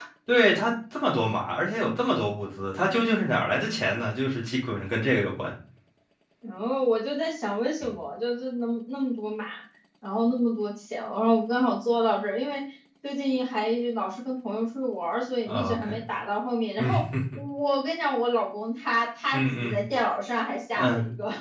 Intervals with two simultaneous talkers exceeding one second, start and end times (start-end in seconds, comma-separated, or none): none